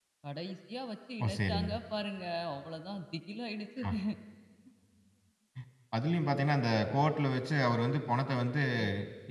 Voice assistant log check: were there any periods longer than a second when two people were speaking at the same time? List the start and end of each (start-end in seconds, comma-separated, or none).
none